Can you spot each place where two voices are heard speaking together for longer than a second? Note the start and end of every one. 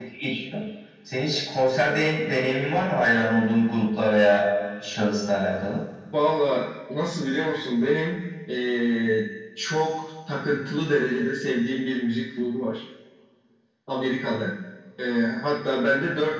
none

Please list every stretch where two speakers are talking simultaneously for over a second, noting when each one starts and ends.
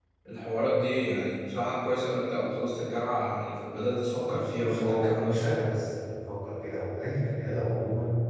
4.3-5.5

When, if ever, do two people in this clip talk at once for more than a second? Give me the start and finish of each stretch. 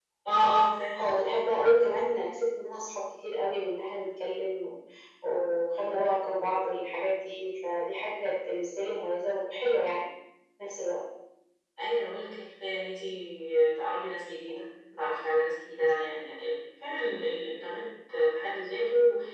none

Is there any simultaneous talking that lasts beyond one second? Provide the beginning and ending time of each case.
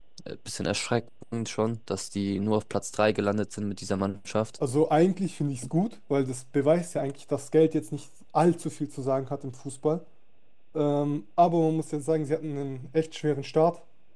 none

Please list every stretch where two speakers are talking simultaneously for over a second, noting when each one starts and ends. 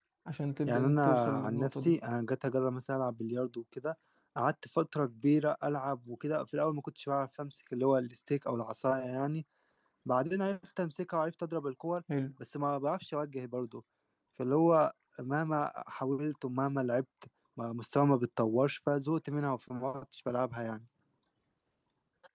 0.7-1.9

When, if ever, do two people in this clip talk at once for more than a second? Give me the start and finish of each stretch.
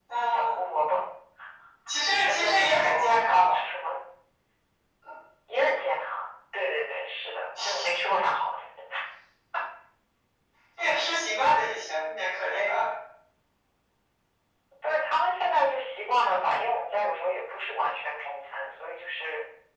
2.1-3.6

